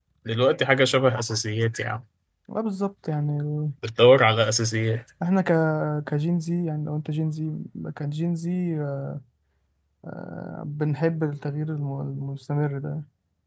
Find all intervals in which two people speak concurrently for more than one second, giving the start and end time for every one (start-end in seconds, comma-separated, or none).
none